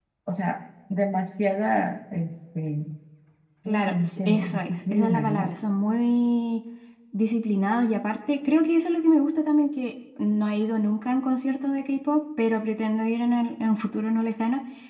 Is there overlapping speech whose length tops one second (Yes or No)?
Yes